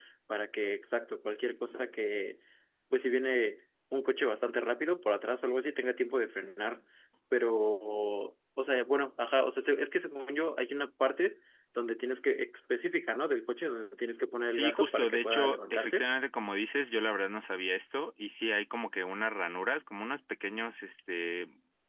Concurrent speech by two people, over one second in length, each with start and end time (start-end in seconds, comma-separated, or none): 14.5-16.0